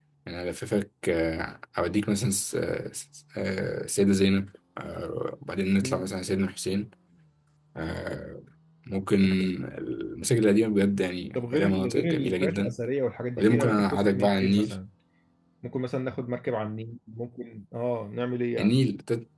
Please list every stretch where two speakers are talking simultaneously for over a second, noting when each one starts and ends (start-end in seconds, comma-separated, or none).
11.3-12.7, 13.4-14.7